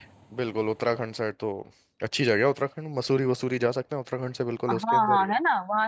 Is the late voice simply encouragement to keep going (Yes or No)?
No